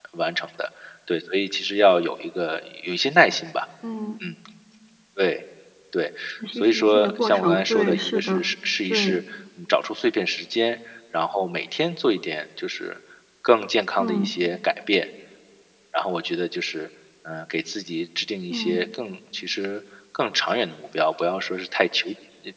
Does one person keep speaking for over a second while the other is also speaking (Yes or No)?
Yes